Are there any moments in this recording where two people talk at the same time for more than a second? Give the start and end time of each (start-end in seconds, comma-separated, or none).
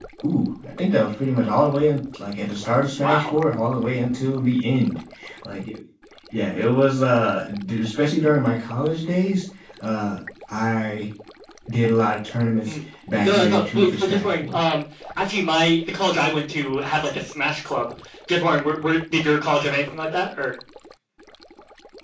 13.2-14.6